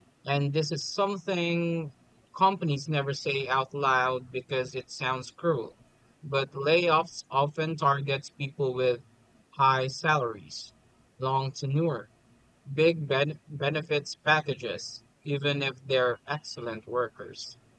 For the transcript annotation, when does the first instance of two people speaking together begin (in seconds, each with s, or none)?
none